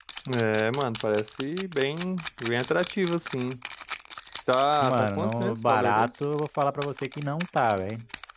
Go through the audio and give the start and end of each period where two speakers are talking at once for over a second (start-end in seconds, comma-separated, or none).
4.8-6.1